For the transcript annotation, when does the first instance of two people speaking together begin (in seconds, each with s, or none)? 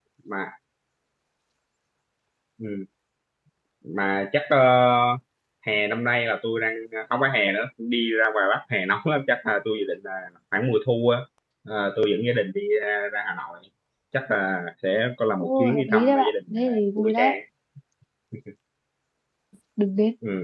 15.4 s